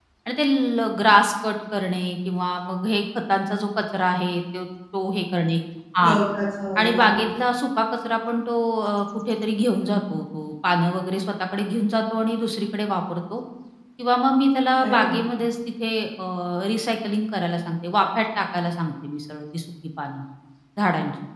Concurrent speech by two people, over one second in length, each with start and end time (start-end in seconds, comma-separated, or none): none